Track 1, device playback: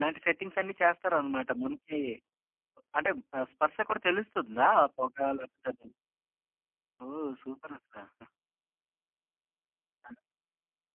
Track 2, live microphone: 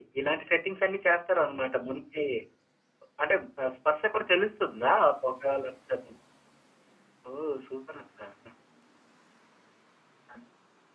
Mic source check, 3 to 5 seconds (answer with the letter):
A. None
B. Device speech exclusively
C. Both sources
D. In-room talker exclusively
B